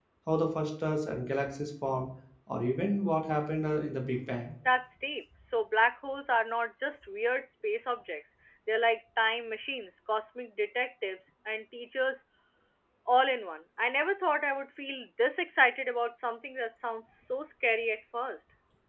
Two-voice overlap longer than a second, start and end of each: none

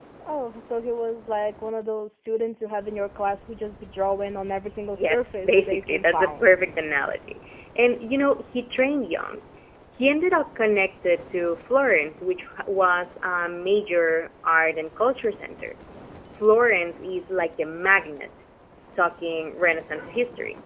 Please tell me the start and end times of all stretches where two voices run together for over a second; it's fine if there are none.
5.0-6.5

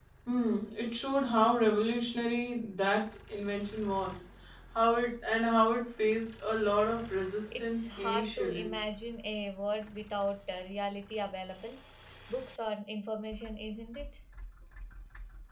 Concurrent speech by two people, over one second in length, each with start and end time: 7.5-8.7

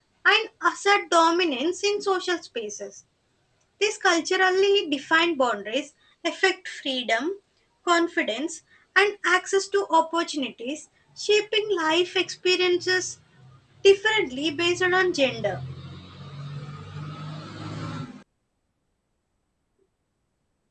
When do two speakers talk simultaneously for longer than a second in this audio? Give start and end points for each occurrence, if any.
none

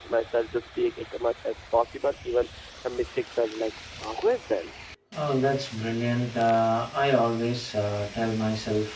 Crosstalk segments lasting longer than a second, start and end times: none

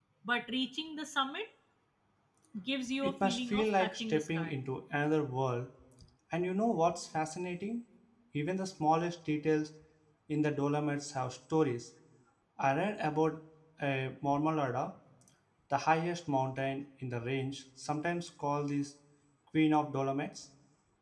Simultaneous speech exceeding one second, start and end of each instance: 3.0-4.5

